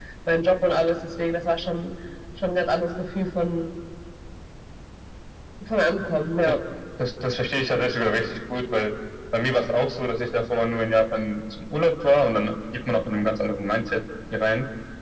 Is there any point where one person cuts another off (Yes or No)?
No